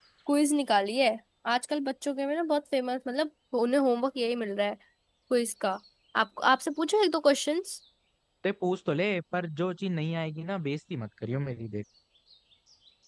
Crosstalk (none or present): none